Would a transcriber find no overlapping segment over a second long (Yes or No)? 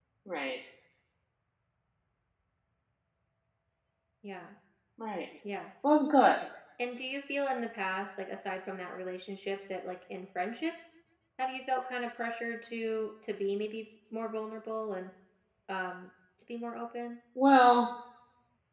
Yes